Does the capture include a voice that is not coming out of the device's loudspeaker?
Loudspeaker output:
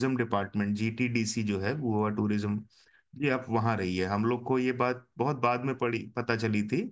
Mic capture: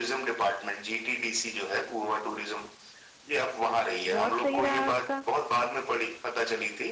Yes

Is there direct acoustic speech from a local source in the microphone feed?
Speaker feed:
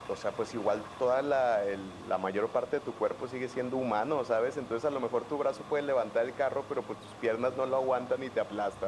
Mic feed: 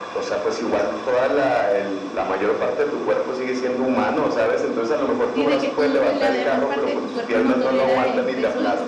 Yes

